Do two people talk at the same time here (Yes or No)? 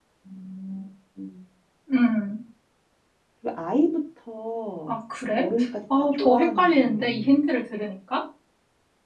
Yes